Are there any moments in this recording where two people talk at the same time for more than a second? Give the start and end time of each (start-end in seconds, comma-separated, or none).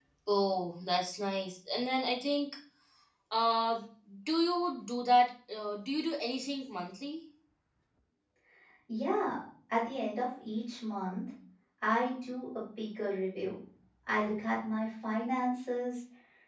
none